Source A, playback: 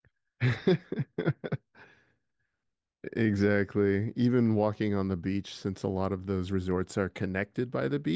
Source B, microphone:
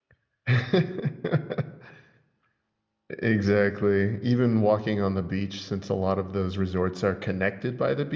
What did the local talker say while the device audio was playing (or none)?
none